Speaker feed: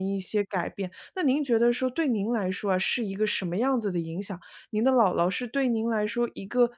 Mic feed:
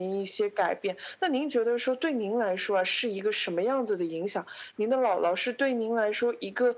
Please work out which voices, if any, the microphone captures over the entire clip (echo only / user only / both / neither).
echo only